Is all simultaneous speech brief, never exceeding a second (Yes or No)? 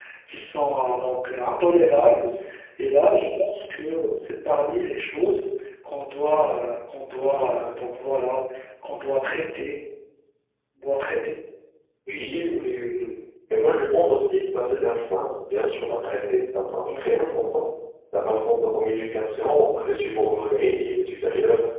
Yes